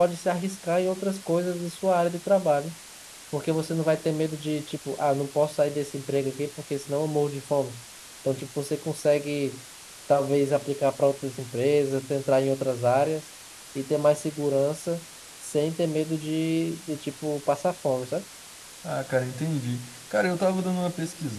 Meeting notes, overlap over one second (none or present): none